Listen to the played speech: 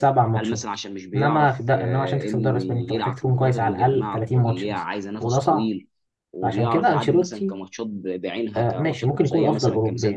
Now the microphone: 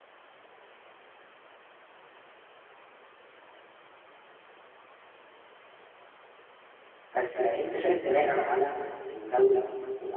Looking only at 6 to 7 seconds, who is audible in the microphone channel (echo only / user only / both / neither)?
neither